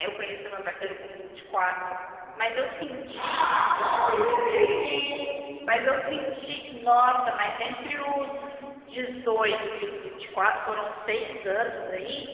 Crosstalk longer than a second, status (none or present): none